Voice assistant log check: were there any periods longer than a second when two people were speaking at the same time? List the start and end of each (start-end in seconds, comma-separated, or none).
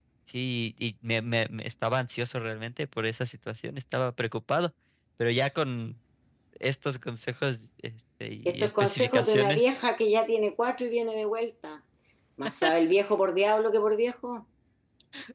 8.4-9.8